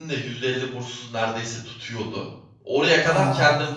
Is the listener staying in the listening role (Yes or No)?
Yes